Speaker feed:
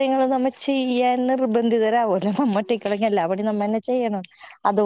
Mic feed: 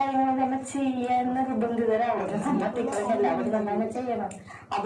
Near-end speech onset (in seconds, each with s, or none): 1.3 s